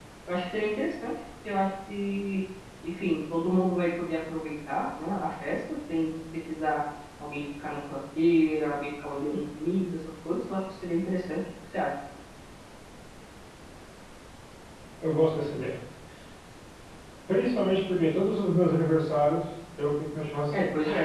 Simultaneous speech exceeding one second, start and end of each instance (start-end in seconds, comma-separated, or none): none